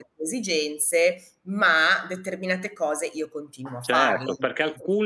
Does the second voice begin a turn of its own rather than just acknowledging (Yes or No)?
Yes